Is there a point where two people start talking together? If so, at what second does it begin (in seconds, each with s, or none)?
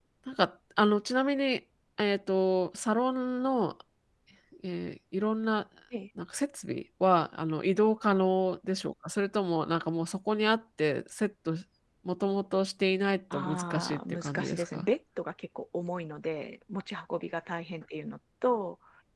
13.3 s